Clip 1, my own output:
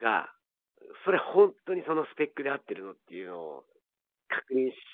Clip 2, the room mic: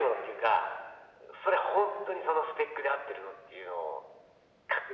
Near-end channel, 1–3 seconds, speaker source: echo only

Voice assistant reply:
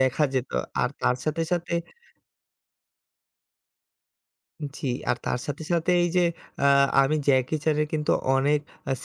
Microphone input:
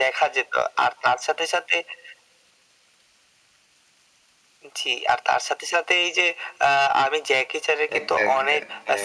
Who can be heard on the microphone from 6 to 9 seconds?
both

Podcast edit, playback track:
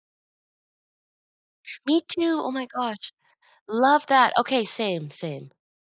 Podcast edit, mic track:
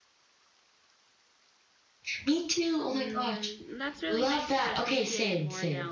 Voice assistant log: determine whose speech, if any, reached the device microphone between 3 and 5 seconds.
both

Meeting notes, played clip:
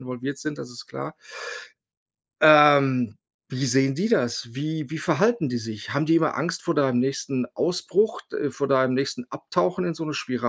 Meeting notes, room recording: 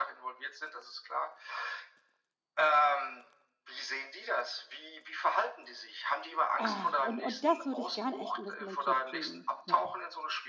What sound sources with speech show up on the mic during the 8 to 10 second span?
both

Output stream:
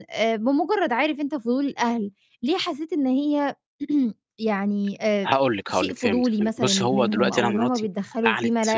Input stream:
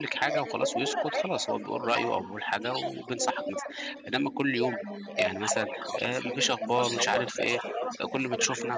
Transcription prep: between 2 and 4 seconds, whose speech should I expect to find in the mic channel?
both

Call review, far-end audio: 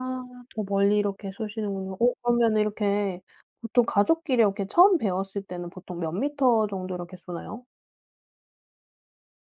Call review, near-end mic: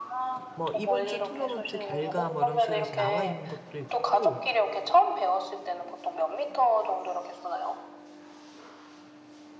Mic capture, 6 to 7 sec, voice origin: echo only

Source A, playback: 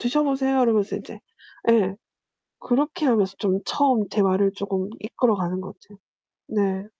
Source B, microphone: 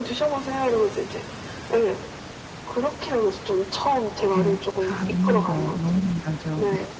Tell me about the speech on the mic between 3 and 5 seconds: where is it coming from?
both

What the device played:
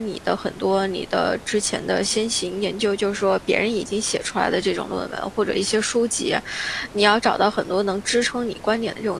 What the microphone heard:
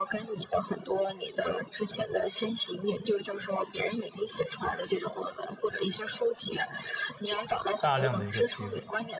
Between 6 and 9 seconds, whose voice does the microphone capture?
both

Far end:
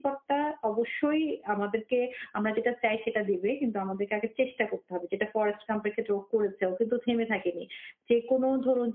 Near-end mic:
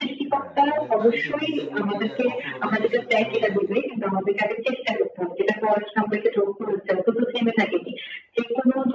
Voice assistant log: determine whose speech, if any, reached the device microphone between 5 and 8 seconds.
echo only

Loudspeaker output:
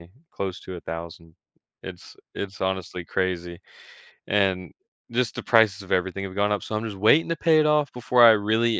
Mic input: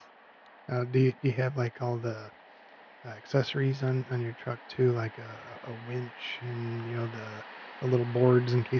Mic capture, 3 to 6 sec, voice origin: user only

